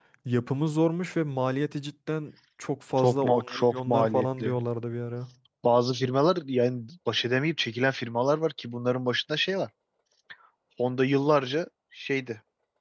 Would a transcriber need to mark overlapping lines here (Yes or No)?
Yes